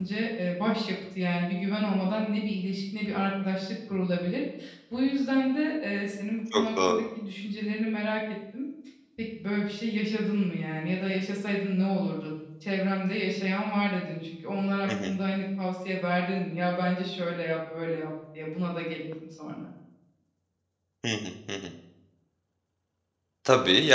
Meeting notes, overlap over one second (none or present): none